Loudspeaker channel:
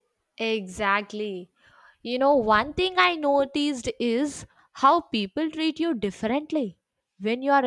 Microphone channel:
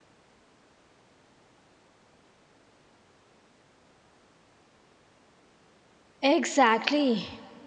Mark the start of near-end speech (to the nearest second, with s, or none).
6 s